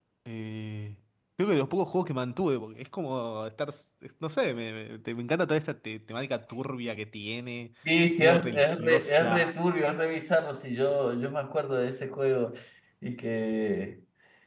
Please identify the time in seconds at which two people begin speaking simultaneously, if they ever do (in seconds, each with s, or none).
8.2 s